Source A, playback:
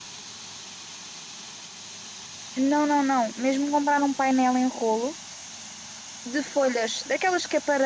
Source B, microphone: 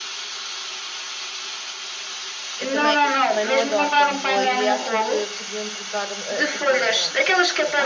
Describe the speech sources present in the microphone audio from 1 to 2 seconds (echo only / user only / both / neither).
neither